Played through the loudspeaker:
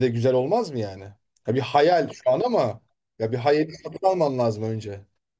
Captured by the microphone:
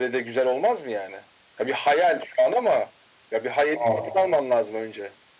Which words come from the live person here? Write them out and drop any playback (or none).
Aa,